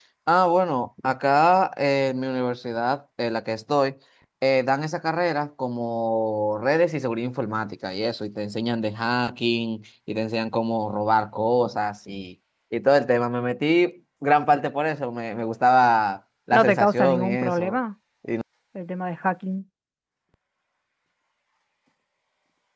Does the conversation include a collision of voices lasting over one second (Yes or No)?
Yes